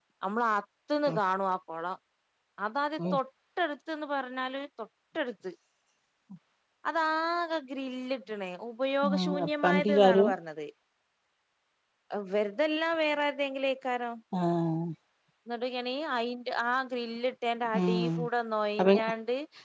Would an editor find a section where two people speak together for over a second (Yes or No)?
Yes